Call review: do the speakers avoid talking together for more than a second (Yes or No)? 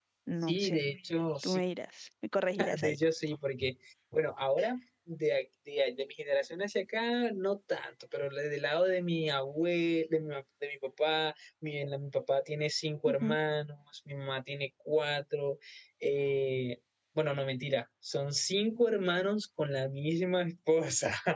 Yes